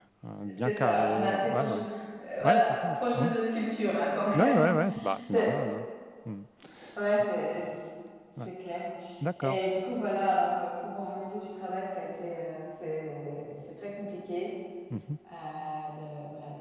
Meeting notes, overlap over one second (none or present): present